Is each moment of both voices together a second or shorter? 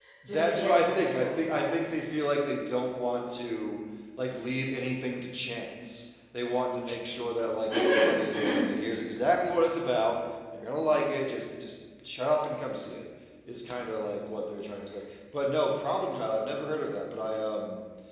No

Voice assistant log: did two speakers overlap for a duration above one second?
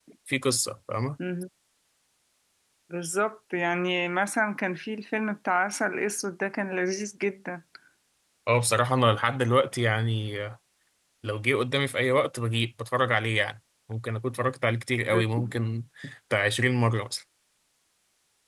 No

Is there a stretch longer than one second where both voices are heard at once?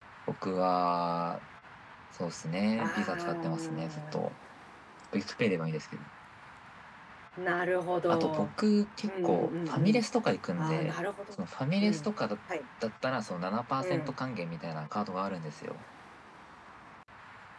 Yes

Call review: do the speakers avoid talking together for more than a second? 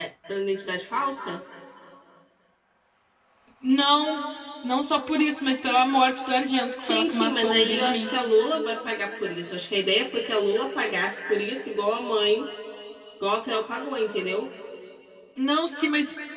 No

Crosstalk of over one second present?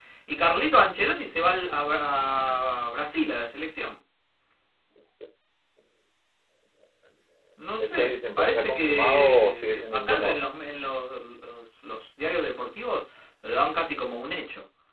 Yes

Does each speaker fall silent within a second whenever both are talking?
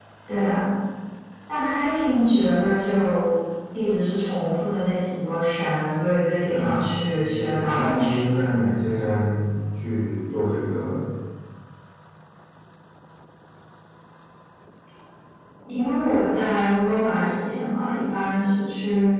No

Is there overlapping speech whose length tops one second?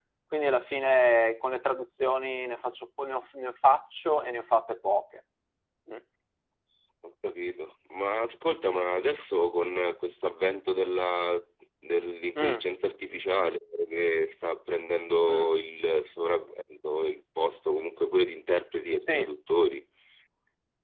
No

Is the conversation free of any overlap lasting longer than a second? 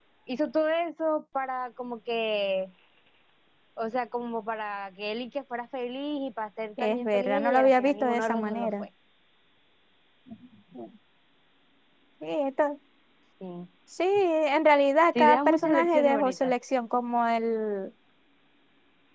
No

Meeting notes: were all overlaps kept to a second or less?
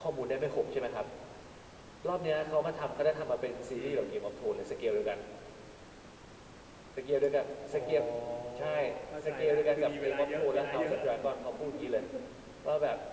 No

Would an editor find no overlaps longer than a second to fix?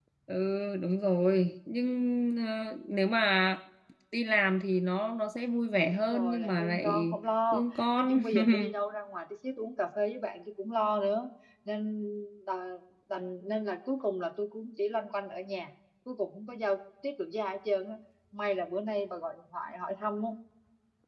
No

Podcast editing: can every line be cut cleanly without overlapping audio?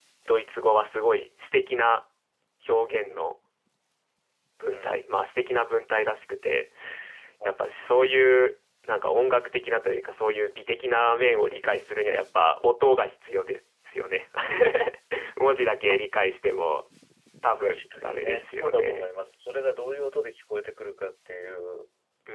No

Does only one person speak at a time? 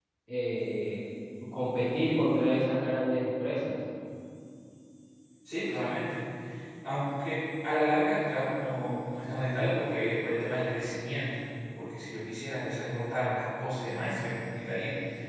Yes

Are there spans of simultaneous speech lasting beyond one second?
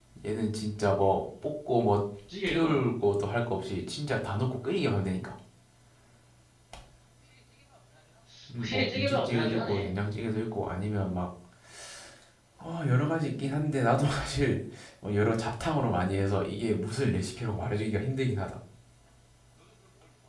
Yes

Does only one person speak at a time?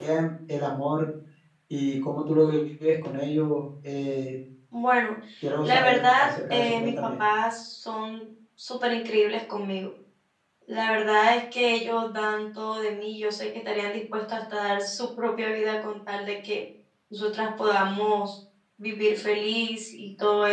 No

